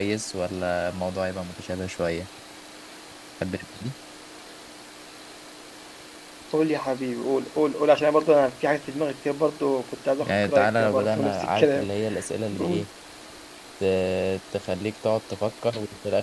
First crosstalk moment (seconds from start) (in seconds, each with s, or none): 10.2 s